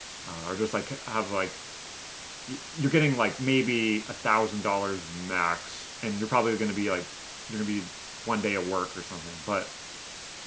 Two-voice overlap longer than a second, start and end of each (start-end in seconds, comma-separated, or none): none